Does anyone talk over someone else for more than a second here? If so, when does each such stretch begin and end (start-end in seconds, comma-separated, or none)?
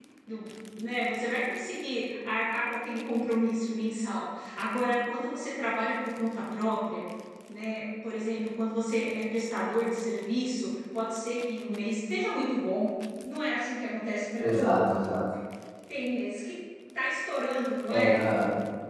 none